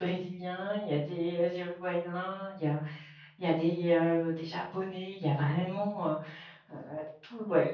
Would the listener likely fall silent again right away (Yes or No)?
Yes